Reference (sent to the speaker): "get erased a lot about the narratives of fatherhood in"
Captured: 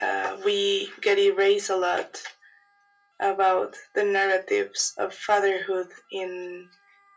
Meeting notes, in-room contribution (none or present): none